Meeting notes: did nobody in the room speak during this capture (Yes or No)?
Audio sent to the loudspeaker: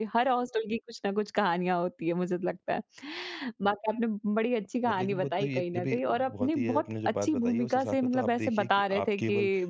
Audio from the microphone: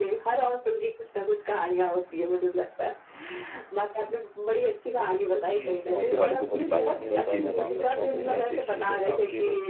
No